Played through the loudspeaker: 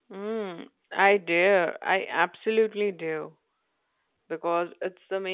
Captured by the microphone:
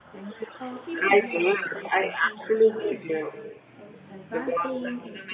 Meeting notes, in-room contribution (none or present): present